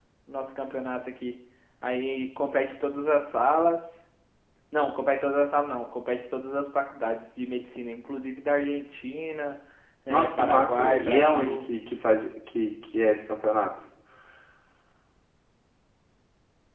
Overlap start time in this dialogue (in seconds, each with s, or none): 10.1 s